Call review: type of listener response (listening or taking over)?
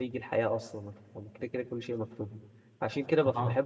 listening